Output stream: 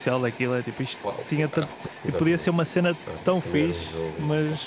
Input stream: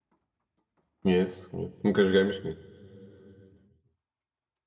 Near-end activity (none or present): present